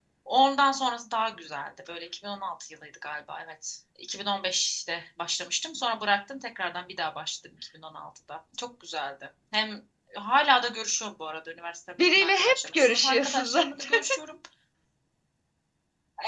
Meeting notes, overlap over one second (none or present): present